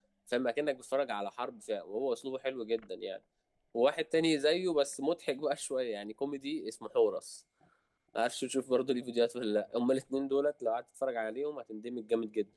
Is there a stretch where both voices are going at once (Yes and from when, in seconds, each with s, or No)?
No